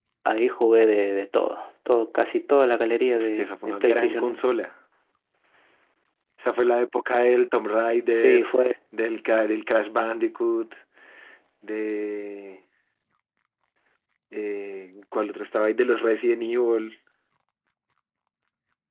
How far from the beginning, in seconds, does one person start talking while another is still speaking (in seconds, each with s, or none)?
3.1 s